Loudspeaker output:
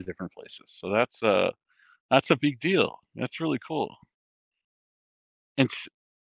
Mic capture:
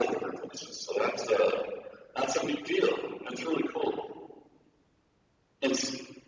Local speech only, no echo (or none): none